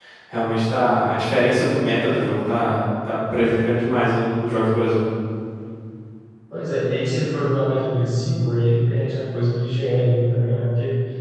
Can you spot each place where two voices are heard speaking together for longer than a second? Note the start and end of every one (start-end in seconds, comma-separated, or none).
none